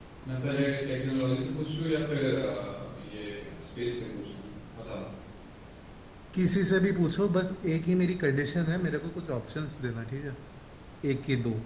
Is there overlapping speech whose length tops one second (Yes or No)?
No